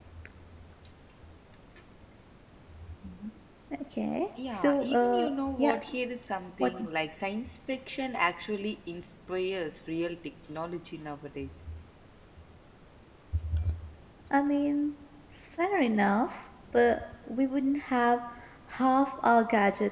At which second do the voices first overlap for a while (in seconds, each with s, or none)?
4.5 s